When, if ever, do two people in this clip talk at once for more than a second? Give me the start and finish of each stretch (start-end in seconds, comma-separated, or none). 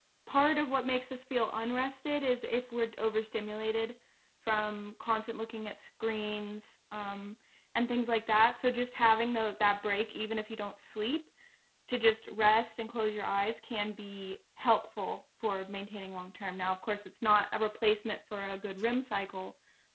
none